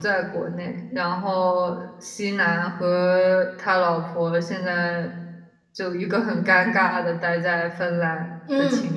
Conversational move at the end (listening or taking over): taking over